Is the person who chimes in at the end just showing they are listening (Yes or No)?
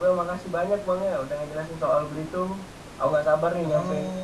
No